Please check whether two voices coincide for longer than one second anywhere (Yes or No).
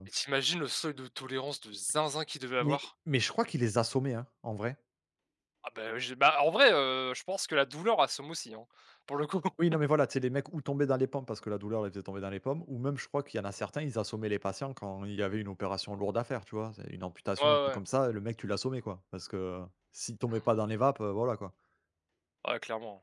No